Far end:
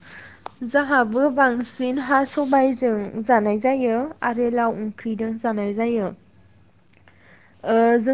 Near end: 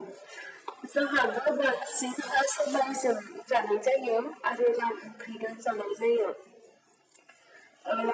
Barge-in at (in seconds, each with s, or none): none